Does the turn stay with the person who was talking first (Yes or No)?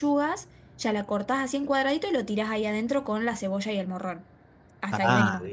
No